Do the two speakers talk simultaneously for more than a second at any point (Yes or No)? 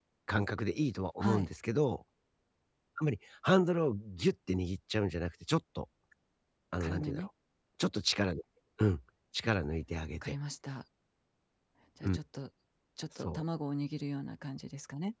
No